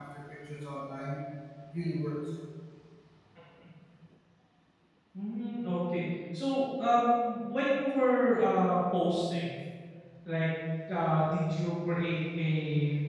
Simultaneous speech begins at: none

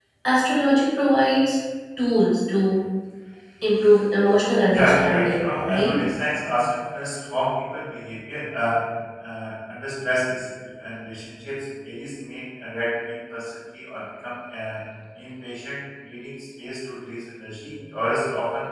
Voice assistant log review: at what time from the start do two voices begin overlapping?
4.7 s

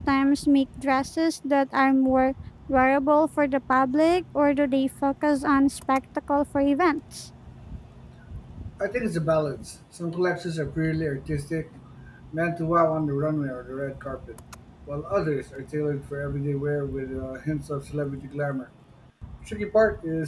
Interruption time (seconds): none

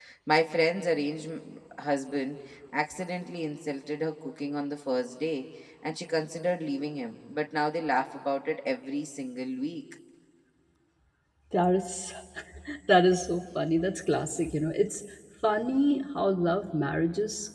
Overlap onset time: none

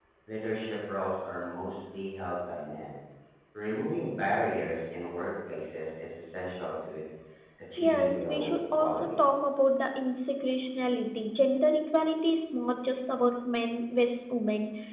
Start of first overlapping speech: 7.8 s

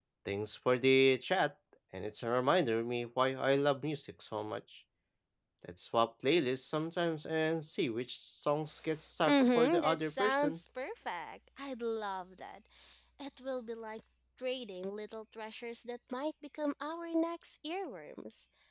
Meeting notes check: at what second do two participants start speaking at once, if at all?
9.2 s

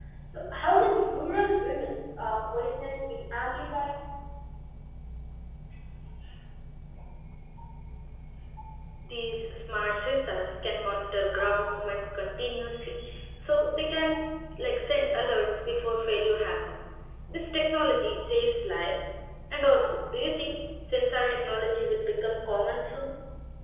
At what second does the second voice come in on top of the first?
none

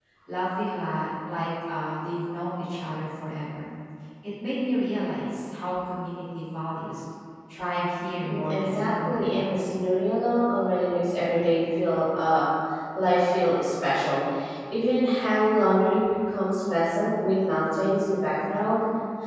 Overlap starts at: 8.3 s

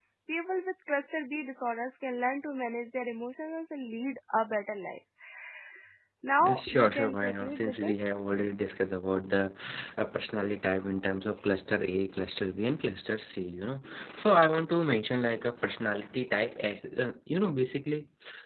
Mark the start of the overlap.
6.4 s

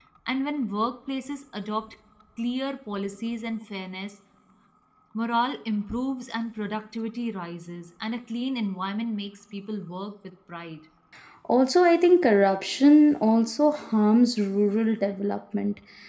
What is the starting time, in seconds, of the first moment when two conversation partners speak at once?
none

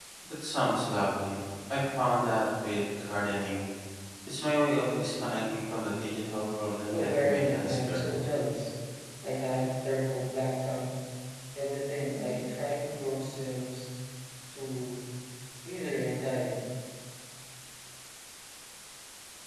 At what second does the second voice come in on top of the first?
6.9 s

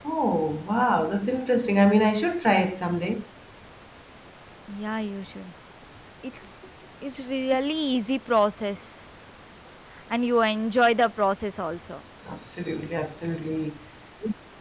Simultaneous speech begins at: none

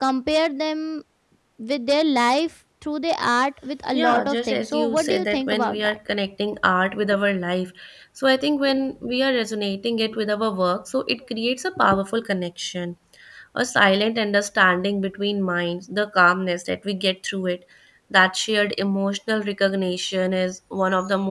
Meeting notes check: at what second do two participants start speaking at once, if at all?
3.9 s

